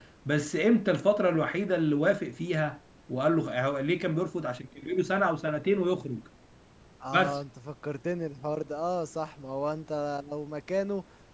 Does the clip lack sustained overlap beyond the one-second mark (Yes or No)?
Yes